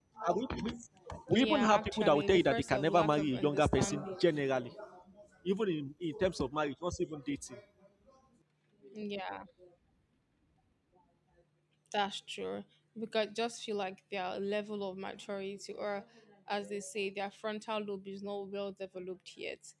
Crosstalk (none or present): present